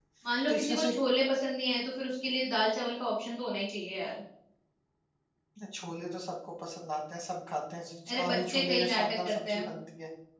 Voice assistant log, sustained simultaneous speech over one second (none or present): present